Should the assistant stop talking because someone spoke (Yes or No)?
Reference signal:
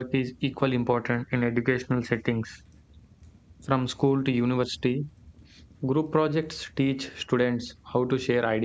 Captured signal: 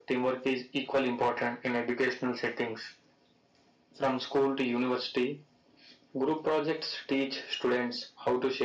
No